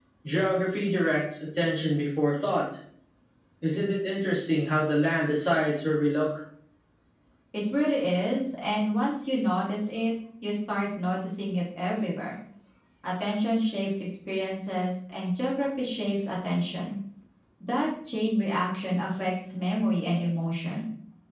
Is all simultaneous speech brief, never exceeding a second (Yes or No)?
Yes